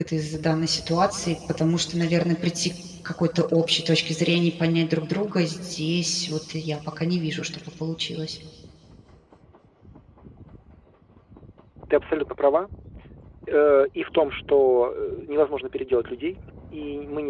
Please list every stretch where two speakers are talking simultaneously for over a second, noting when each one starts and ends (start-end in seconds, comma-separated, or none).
none